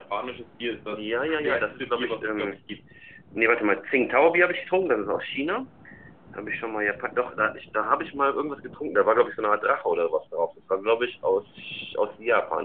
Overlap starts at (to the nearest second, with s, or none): 1 s